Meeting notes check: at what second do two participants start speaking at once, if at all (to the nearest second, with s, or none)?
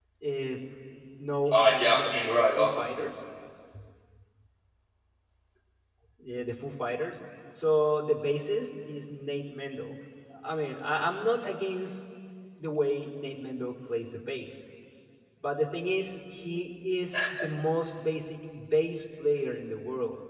2 s